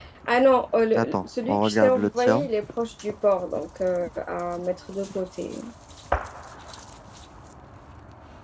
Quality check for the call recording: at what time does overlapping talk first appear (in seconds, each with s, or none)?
1.0 s